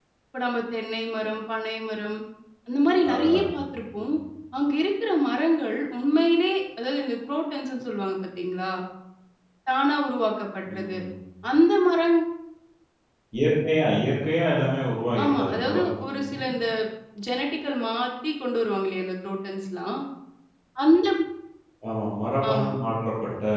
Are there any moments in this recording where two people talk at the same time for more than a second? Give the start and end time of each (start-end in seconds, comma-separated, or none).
15.2-16.5